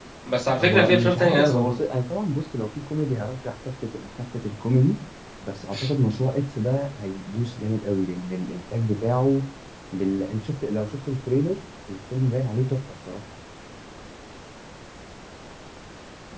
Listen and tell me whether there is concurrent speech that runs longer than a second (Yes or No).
Yes